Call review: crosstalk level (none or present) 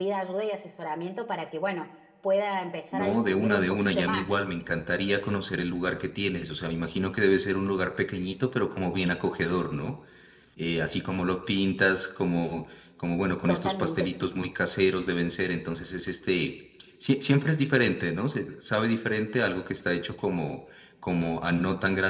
present